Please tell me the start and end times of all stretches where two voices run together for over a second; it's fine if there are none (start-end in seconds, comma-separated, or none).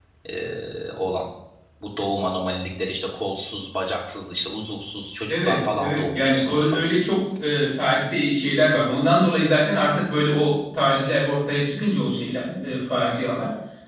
5.3-6.8